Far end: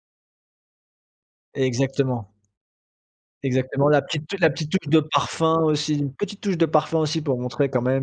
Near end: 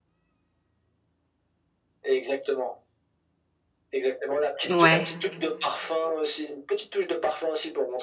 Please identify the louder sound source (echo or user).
user